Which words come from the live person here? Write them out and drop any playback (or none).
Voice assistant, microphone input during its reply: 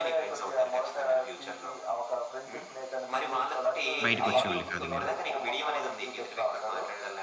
బయటికొచ్చేవాళ్ళు కాదు మీరు.